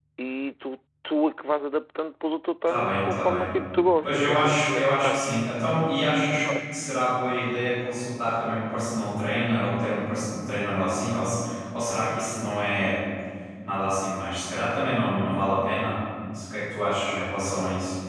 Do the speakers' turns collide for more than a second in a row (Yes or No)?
Yes